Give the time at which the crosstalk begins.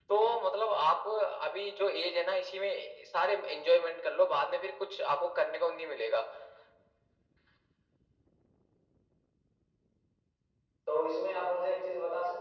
none

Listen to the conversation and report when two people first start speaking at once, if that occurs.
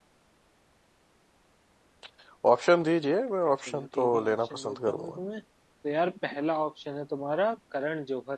3.7 s

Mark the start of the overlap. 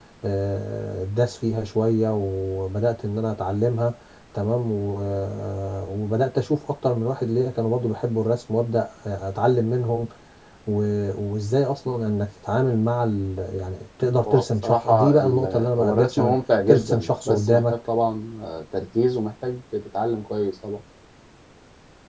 14.2 s

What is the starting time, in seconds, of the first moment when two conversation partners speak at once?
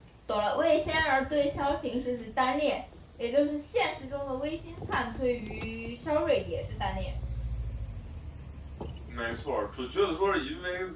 none

